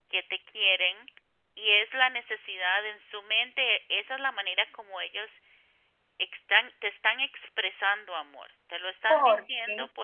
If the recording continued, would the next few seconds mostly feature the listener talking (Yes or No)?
No